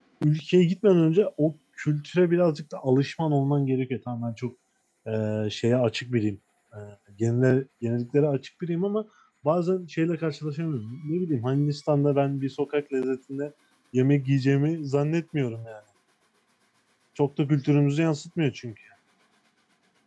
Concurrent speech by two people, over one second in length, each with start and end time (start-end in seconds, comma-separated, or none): none